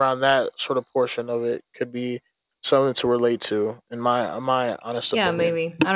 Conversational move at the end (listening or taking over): taking over